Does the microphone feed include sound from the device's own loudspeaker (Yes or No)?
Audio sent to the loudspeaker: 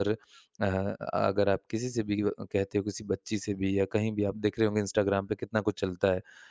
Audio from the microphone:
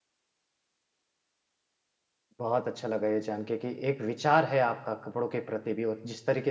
No